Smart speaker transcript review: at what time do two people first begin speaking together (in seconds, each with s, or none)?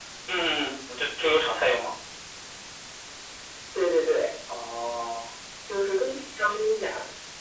none